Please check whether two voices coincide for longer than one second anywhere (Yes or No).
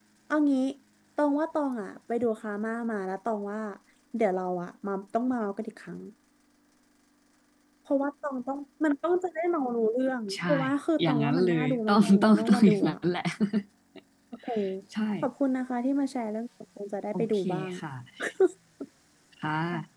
Yes